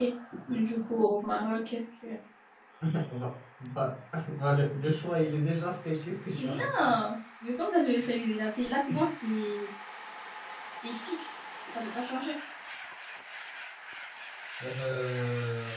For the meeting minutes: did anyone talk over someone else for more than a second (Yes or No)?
No